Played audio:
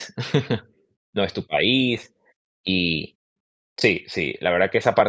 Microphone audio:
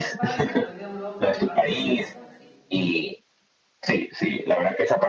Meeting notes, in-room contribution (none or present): present